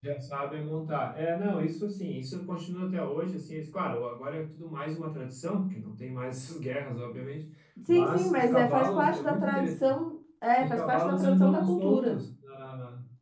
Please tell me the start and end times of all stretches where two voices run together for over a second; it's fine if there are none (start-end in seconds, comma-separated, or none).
7.9-10.0, 10.6-12.2